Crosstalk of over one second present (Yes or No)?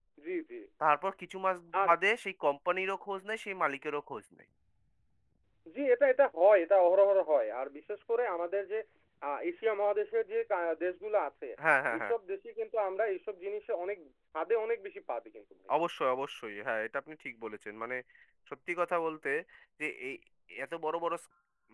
No